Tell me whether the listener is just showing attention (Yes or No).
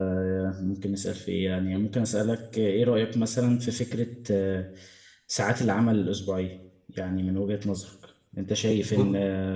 Yes